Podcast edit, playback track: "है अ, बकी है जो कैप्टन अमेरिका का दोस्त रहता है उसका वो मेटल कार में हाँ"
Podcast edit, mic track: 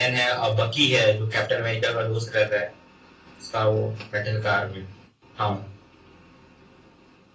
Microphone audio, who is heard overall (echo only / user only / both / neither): echo only